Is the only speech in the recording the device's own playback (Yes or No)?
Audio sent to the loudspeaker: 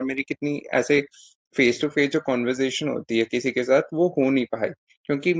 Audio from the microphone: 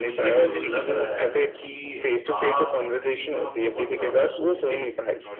No